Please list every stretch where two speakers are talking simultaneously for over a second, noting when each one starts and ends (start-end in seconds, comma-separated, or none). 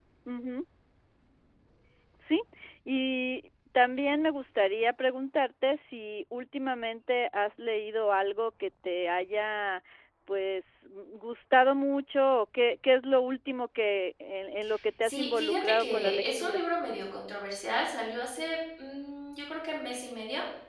15.0-16.6